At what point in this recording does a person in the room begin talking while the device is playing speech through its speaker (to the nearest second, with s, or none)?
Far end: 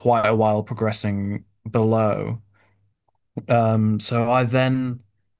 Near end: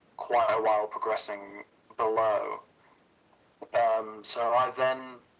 none